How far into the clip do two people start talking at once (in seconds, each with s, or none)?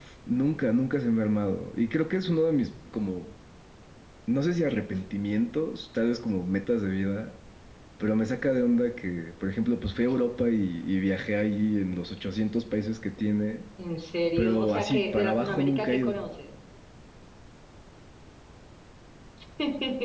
14.4 s